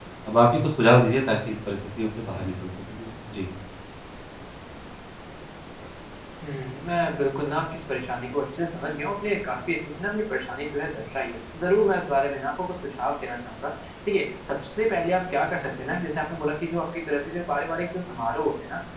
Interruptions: none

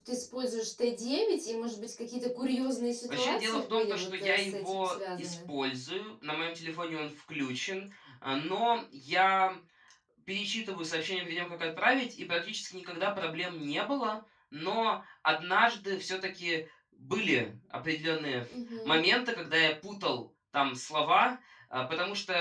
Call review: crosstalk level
present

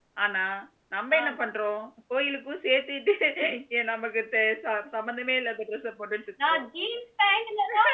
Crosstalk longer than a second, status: none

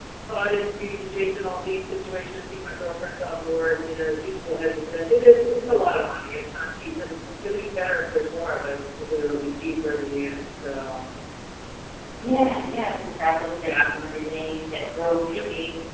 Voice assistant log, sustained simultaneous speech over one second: none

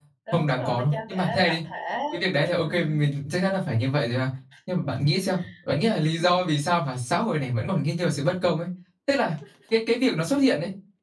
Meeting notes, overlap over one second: present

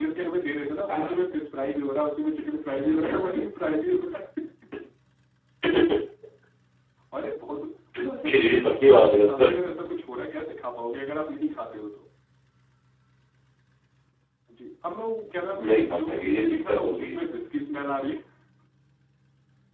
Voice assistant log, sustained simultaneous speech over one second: present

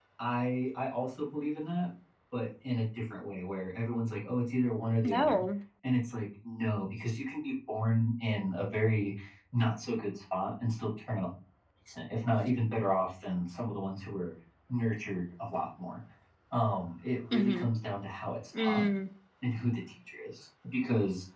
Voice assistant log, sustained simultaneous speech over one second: none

